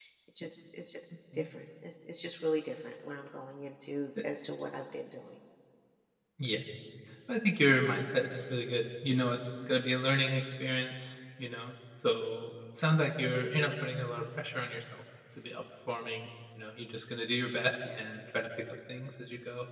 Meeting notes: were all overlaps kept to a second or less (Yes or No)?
Yes